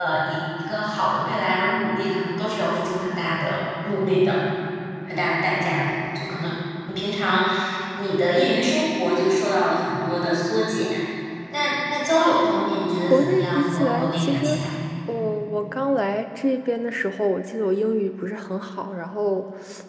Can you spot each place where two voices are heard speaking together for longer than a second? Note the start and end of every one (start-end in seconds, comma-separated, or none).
12.9-14.6